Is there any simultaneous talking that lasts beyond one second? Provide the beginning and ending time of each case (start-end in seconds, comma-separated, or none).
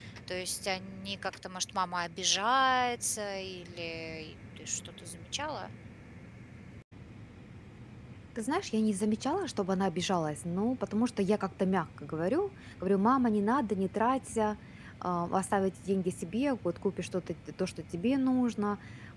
none